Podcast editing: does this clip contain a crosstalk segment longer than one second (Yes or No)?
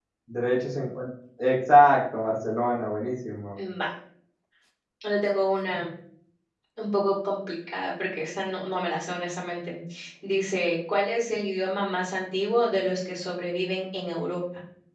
No